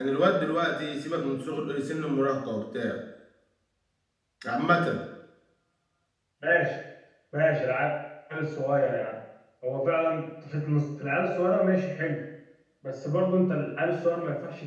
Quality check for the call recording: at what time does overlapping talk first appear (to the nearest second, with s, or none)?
none